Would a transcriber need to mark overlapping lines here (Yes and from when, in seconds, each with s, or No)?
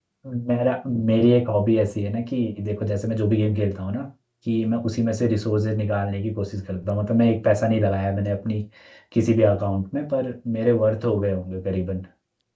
No